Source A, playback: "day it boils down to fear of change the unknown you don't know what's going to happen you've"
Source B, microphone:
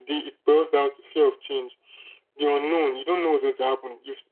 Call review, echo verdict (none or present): present